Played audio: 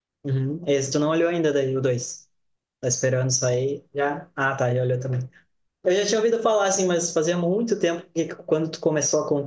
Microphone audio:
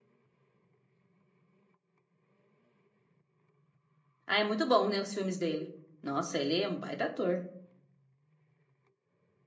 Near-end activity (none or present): present